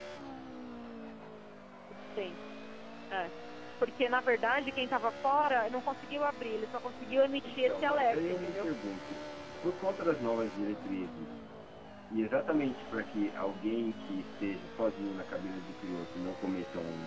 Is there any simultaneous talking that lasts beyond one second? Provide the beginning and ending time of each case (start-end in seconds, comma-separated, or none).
7.4-8.7